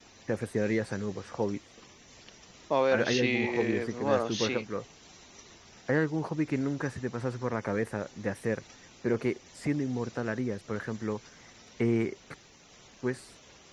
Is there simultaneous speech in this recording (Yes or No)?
Yes